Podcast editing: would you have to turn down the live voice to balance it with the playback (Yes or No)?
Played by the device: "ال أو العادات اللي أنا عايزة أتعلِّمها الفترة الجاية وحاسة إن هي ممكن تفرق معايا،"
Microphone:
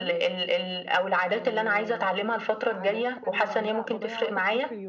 No